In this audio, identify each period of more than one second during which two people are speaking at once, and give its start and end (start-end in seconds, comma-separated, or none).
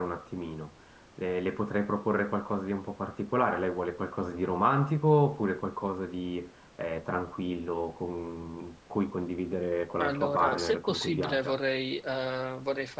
10.0-11.6